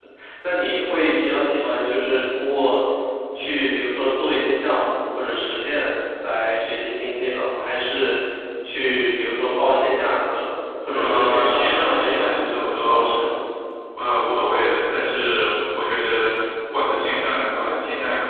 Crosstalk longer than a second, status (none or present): present